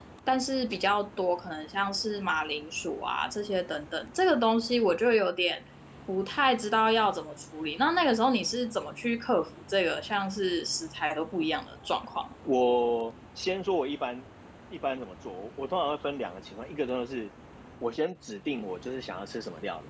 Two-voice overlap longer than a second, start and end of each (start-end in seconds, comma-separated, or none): none